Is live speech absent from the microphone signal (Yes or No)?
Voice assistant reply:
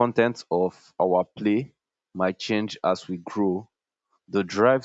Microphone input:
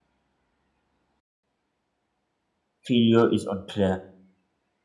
No